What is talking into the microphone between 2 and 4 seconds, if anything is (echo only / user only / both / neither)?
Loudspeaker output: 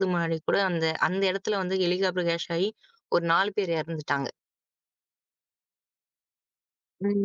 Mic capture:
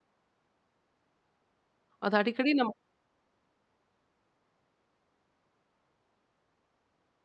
user only